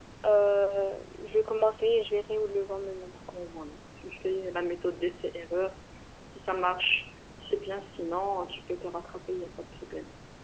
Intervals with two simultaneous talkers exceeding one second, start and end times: none

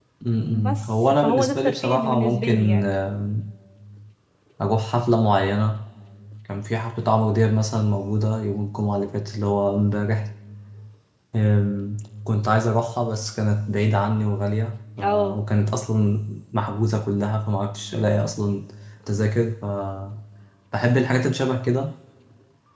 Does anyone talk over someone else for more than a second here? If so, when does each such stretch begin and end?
0.6-2.9

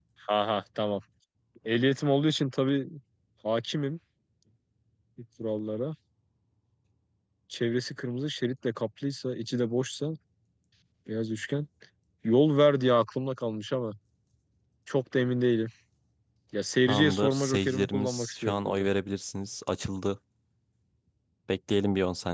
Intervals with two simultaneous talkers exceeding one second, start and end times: 16.9-18.9

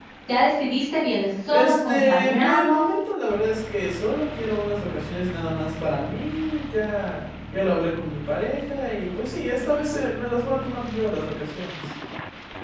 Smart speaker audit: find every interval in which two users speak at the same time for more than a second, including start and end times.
1.5-3.0

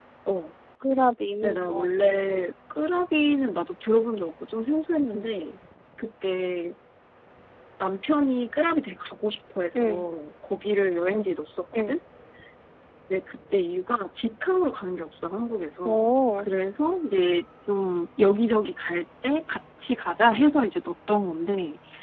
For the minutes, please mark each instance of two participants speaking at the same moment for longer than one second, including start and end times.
none

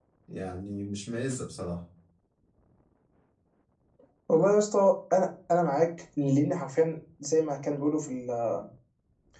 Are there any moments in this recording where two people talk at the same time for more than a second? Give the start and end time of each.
none

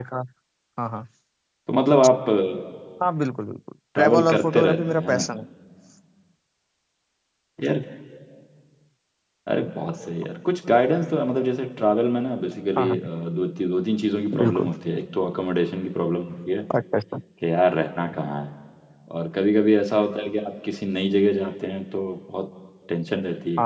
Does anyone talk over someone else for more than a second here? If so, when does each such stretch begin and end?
4.0-5.3

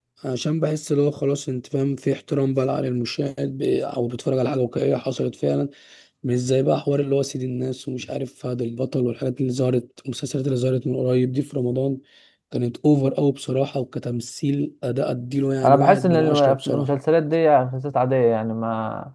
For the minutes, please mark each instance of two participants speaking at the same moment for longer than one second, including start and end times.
15.6-16.9

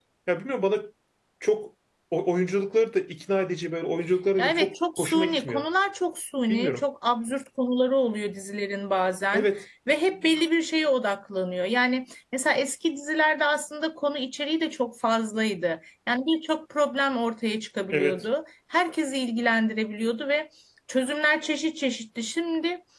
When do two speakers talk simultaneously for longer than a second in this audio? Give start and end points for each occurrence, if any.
4.4-5.6

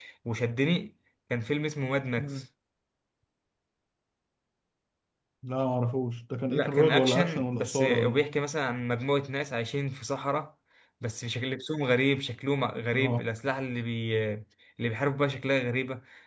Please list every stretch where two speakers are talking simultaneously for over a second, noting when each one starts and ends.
6.5-8.2

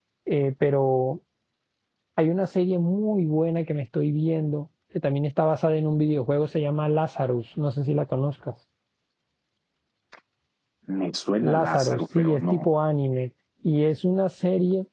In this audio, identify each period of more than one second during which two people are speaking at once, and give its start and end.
11.4-12.7

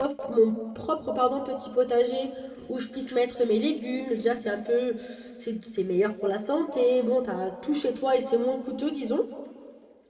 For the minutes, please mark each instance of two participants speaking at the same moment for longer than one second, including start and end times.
none

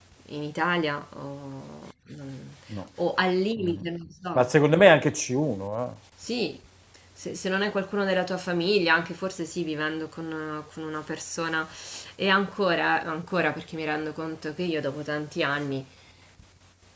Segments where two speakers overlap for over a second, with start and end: none

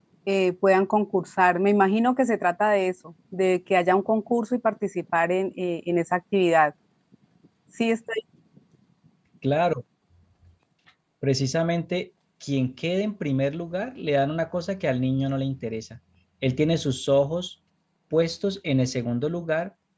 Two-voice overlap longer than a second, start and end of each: none

